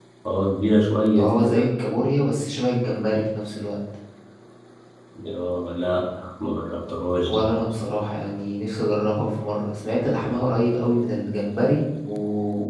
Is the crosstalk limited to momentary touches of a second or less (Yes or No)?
Yes